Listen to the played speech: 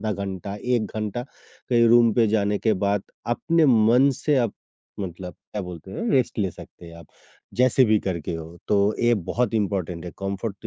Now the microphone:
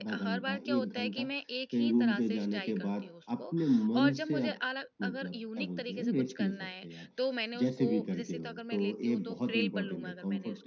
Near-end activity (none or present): present